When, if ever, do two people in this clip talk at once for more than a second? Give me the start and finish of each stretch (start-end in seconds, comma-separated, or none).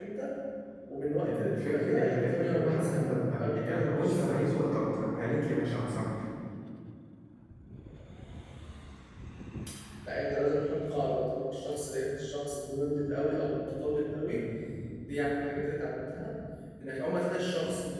1.2-4.5